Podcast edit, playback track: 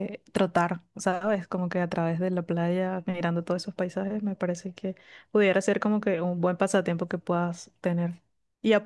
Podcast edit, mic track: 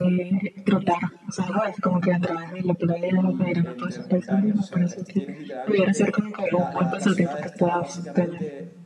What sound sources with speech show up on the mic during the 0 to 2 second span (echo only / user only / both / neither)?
echo only